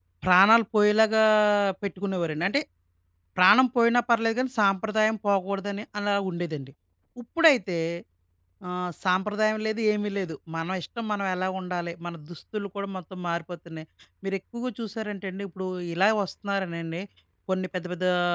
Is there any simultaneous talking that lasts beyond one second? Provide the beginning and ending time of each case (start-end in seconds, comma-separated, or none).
none